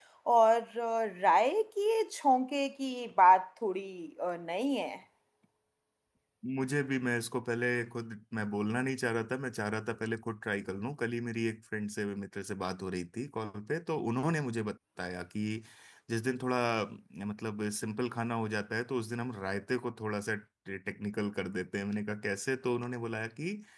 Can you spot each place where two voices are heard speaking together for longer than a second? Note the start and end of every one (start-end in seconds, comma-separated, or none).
none